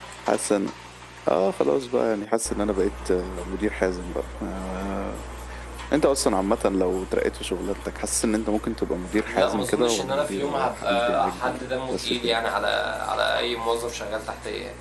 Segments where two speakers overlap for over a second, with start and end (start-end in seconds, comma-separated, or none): 9.2-12.3